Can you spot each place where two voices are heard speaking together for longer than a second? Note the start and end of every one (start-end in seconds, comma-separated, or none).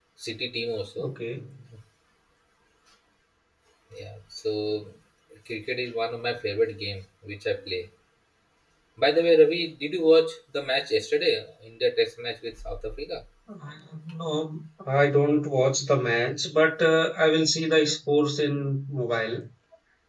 none